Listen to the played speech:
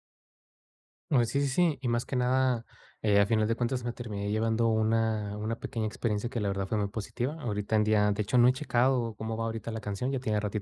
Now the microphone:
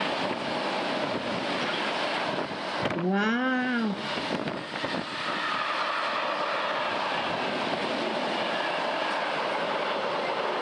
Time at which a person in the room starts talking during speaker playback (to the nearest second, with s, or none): 3 s